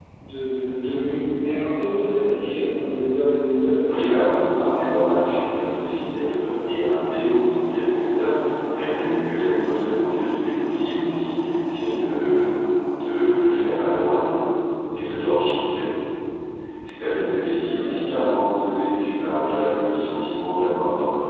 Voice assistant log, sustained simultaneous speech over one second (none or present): present